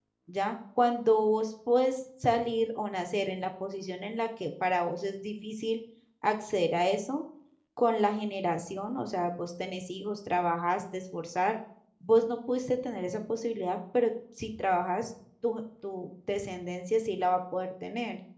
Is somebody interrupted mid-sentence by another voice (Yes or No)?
No